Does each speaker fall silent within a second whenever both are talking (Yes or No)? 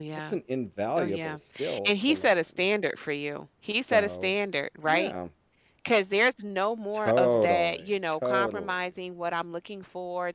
No